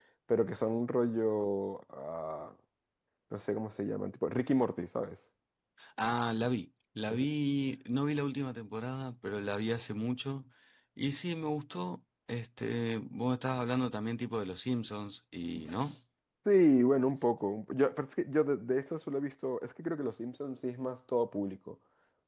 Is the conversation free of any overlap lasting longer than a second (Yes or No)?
Yes